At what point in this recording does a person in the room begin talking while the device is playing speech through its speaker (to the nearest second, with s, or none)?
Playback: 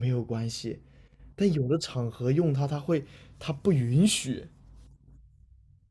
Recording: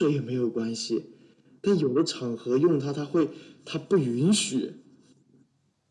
none